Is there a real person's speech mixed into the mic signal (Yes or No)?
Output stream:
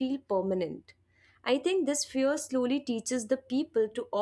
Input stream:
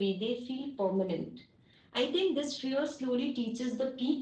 No